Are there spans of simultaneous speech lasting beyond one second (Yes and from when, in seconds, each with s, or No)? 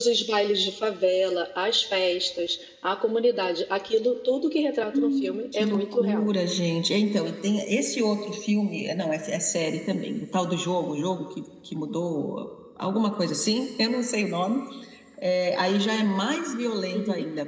Yes, from 5.0 s